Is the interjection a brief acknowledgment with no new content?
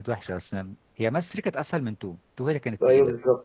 No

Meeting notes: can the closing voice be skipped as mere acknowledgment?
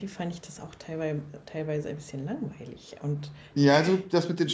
No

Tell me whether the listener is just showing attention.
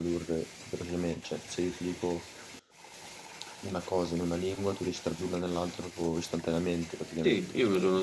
No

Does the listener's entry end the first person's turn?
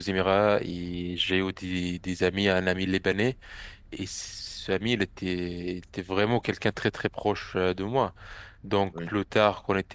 No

